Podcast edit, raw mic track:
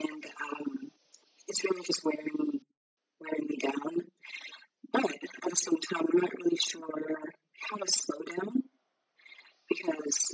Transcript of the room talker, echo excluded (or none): none